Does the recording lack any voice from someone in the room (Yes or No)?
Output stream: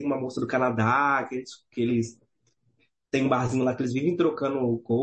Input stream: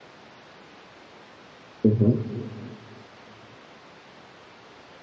No